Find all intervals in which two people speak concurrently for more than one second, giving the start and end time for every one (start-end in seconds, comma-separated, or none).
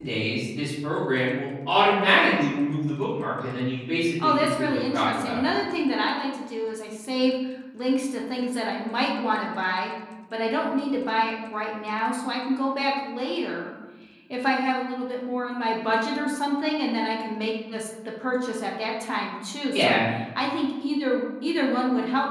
4.2-5.5